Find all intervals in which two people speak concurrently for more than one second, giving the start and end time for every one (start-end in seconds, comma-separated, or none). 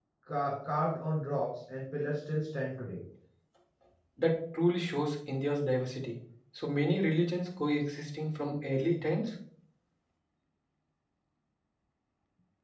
none